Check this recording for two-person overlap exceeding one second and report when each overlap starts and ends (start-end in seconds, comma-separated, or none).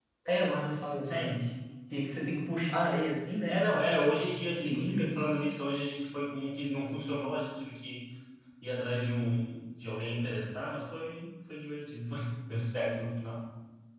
3.5-5.1